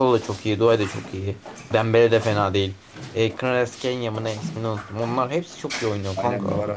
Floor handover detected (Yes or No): Yes